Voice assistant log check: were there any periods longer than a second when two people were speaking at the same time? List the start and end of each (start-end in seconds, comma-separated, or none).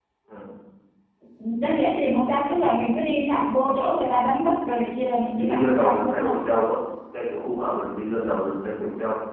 5.0-6.3